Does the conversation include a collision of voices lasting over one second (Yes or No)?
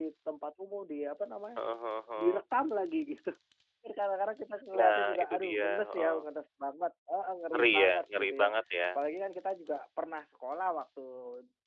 Yes